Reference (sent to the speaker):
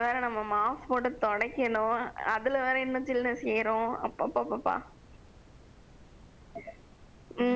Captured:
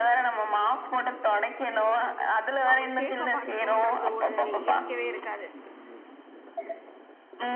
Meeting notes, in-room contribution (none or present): present